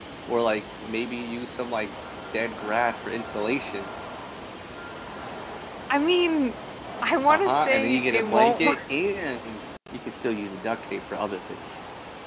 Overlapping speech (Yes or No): Yes